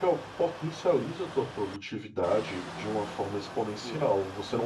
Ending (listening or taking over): listening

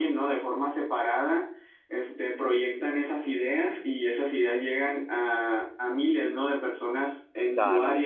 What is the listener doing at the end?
listening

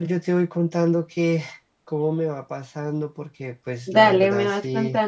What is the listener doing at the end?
taking over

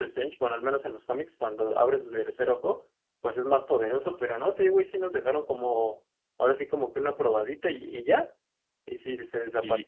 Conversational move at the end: taking over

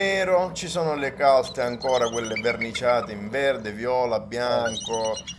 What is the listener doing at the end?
listening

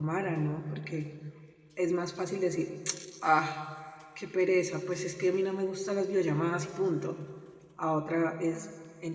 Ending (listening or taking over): listening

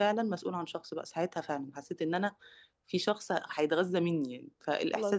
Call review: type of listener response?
listening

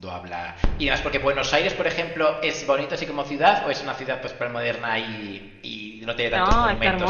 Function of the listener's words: taking over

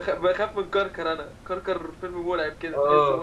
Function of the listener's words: taking over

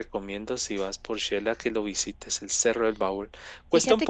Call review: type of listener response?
taking over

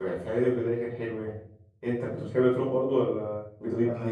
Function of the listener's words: taking over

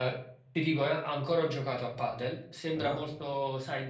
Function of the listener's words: listening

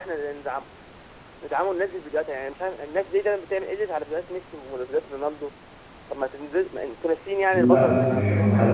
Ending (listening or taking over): taking over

